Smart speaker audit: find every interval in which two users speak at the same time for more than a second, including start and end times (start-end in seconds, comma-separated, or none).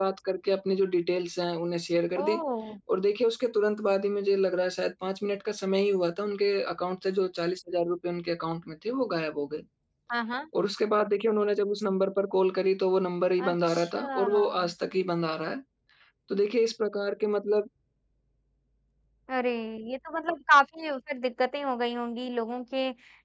13.4-14.7